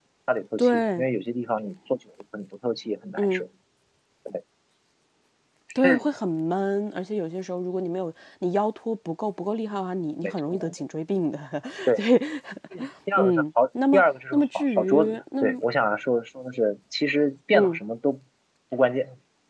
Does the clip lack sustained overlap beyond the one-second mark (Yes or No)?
No